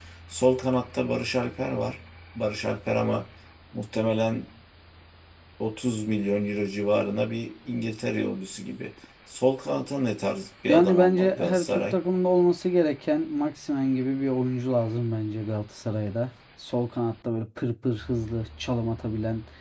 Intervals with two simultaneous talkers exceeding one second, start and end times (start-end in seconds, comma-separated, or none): 10.7-12.0